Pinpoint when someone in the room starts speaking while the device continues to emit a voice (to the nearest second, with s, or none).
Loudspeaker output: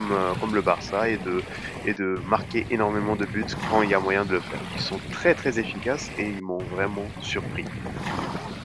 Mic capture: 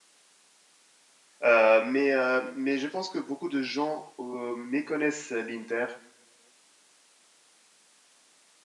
1 s